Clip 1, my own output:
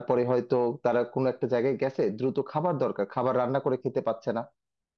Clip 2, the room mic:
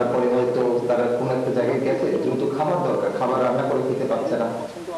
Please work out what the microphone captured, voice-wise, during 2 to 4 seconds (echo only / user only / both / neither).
both